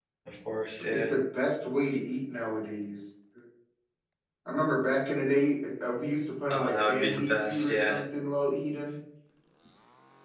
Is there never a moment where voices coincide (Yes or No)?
No